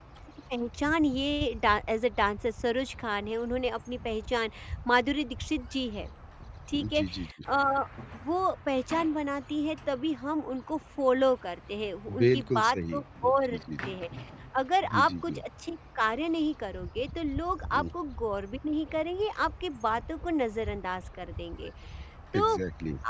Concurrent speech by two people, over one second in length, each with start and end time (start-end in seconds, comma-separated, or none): 12.2-13.6